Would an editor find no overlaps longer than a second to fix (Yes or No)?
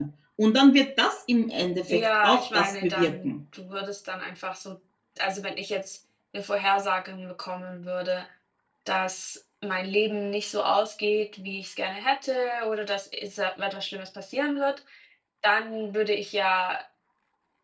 No